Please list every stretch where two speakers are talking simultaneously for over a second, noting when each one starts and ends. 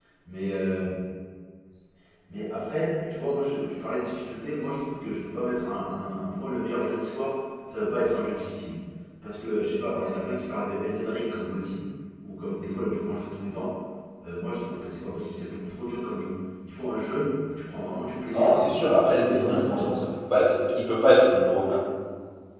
18.3-20.0

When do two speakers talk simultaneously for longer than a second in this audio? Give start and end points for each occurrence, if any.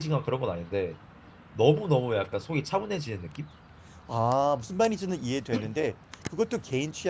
none

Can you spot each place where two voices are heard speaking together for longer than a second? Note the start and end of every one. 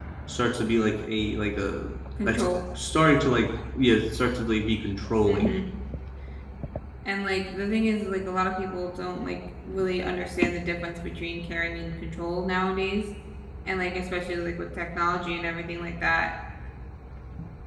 none

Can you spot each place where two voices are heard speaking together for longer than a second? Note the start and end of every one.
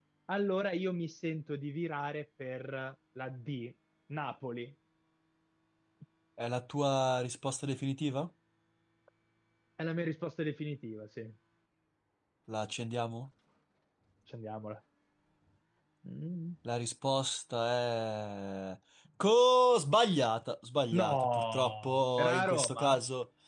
21.0-22.9

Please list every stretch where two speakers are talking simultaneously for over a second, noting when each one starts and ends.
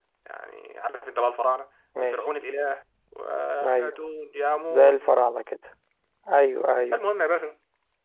none

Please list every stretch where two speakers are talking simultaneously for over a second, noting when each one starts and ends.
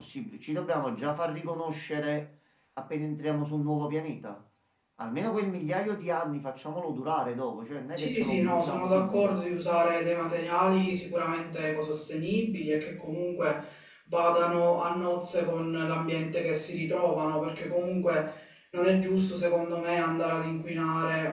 8.0-9.3

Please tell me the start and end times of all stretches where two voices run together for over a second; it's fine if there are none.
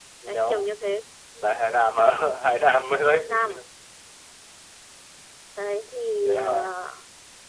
none

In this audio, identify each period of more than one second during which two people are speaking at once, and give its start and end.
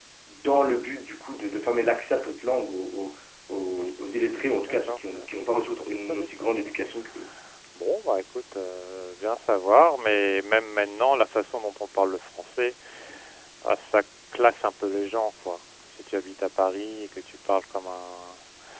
3.8-6.5

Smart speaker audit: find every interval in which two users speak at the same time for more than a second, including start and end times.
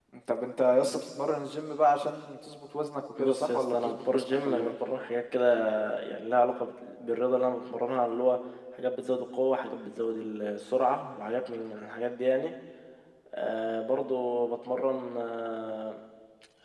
3.2-4.7

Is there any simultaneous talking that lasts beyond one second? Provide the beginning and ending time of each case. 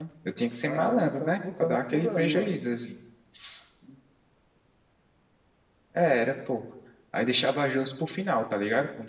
0.7-2.6

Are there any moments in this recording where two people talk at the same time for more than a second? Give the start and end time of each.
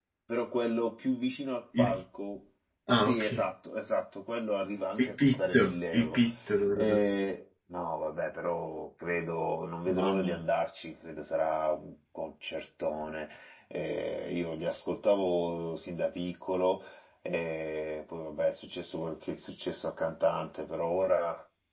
5.0-6.2

